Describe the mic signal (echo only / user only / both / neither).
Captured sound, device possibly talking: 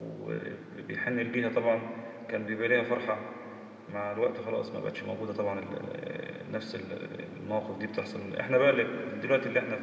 user only